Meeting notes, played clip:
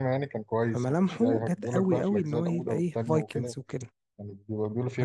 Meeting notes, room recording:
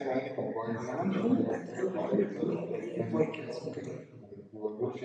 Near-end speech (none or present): none